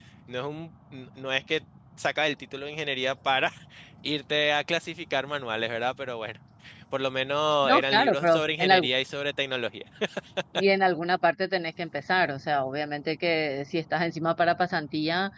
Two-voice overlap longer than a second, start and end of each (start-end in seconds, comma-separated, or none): 7.6-8.9